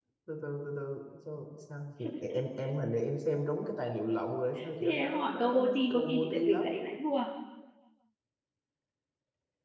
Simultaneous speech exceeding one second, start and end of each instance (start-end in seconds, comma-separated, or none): 4.8-6.7